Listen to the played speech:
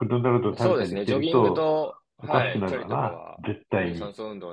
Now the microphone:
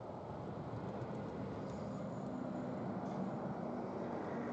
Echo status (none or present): none